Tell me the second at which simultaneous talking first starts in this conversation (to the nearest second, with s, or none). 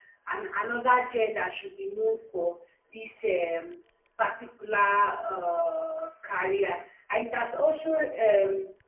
none